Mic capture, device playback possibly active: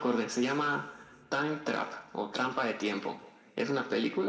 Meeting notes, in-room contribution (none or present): none